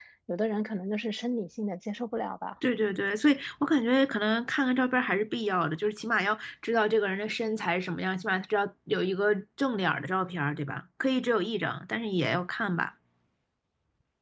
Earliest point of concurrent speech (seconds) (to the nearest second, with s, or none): none